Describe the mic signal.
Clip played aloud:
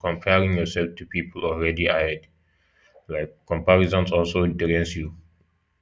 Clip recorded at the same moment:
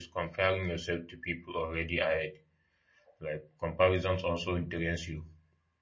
echo only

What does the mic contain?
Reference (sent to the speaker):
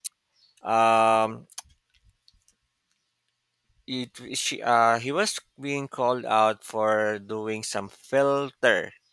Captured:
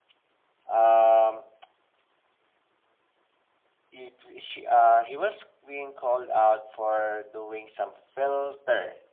echo only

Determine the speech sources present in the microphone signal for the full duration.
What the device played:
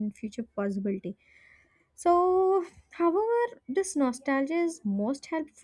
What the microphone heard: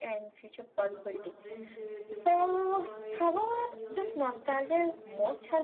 both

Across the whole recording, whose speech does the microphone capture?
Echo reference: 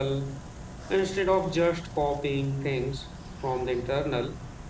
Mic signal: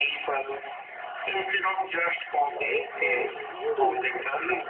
both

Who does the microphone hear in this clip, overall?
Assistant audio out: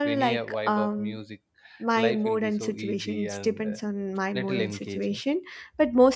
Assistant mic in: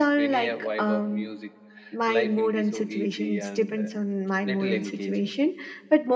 echo only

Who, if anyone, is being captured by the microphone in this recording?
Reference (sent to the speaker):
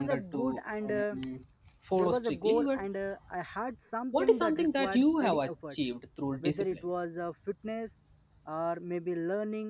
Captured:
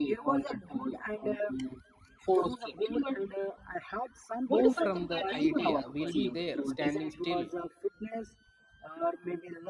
both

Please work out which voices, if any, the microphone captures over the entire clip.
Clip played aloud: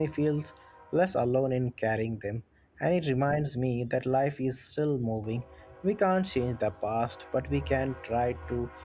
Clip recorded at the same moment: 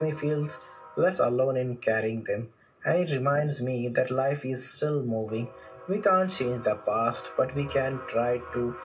echo only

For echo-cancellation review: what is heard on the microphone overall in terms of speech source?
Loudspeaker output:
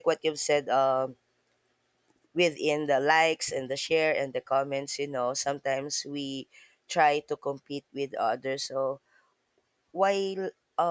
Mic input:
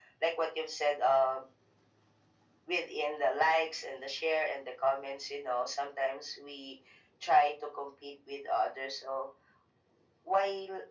echo only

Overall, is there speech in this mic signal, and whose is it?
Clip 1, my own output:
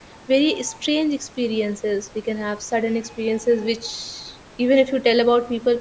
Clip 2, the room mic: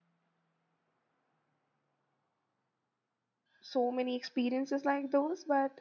user only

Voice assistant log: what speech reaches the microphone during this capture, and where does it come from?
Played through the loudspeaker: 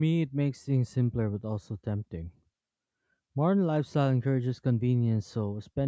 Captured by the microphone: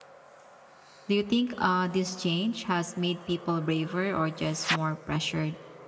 user only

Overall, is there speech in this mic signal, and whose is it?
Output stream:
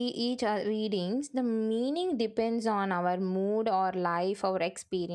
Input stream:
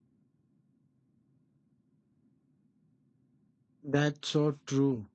user only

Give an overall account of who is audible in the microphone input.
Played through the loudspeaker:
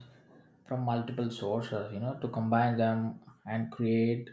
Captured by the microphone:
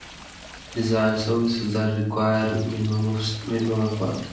user only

